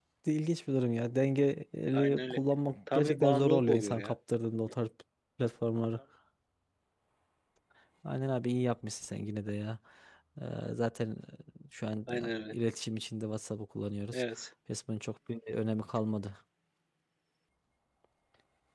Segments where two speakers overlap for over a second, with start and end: 2.9-4.2

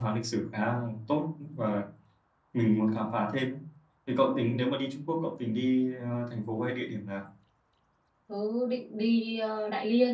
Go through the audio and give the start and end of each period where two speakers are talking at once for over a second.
none

